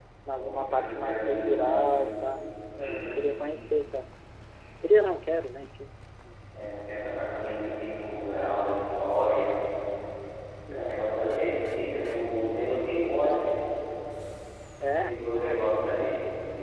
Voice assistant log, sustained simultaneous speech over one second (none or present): present